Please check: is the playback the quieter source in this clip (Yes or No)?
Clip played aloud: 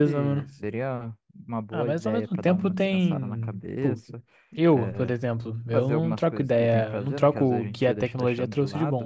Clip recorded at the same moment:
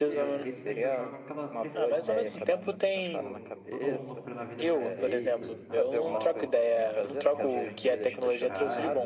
No